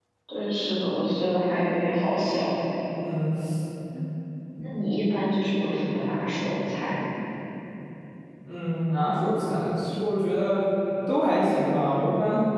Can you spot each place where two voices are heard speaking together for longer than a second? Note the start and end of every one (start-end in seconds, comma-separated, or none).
none